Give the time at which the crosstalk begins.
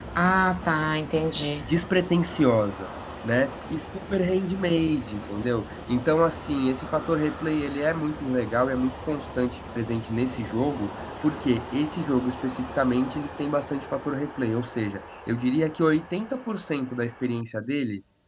none

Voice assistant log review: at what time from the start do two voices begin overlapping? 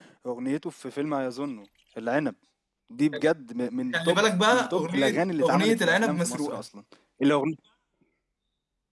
3.9 s

